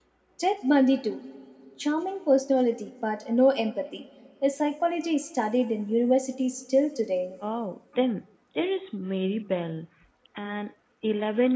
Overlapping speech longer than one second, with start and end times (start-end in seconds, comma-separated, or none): none